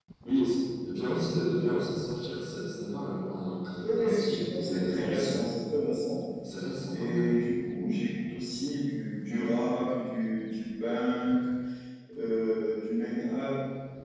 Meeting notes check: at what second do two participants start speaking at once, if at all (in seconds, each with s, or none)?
3.8 s